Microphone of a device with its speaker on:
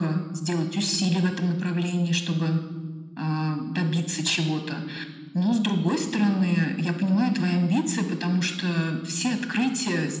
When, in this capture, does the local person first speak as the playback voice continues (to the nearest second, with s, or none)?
none